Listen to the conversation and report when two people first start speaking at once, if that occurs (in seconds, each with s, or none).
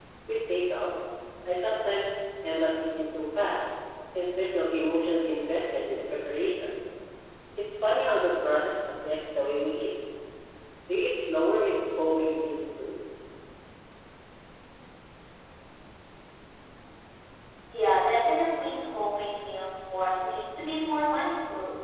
none